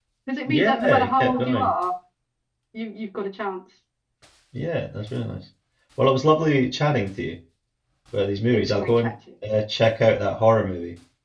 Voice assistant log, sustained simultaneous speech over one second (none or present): present